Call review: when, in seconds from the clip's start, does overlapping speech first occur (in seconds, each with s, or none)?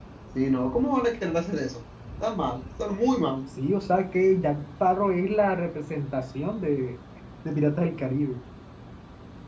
none